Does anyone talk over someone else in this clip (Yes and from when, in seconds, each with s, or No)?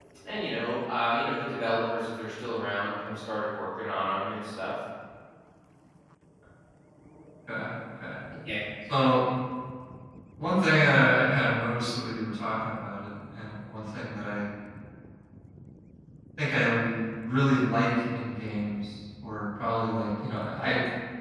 No